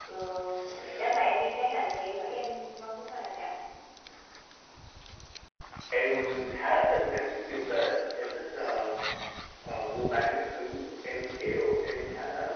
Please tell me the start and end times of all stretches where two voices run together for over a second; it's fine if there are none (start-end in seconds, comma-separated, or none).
none